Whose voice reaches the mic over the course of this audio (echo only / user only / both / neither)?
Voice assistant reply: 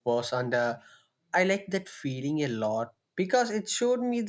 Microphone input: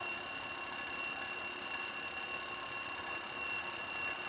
neither